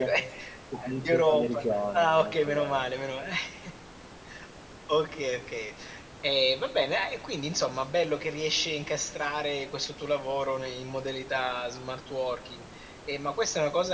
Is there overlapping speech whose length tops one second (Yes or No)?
Yes